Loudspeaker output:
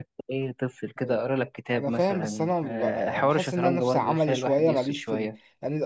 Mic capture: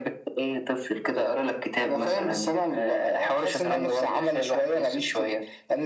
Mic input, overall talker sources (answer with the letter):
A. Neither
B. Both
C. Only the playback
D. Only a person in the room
C